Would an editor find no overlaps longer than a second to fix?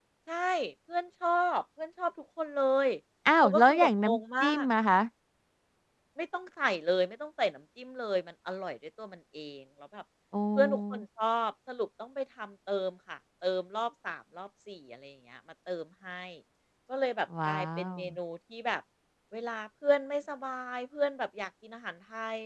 No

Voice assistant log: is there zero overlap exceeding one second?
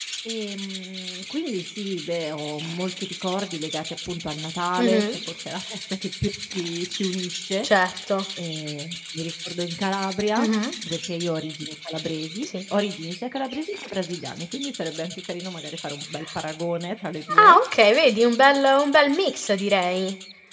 Yes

